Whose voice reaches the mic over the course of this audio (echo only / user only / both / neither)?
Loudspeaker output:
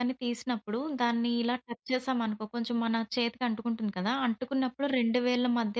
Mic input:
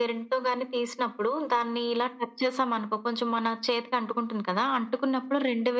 echo only